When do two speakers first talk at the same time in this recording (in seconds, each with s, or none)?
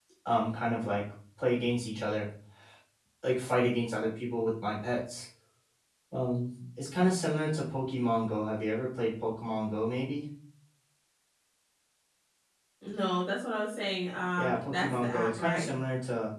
14.4 s